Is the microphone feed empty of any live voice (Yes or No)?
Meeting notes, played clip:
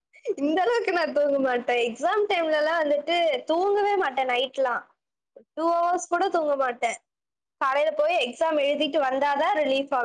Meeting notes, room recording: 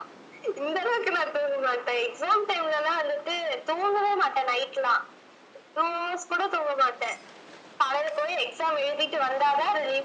Yes